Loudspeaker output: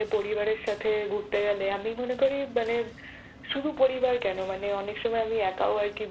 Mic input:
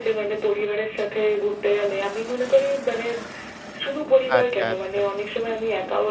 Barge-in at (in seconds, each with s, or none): 4.4 s